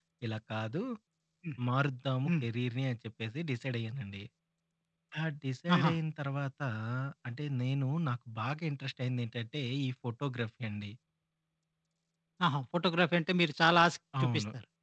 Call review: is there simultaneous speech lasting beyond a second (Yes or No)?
No